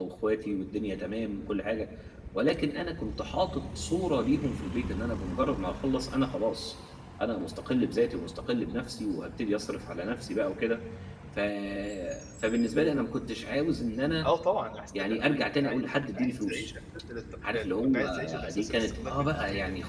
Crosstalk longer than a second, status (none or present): present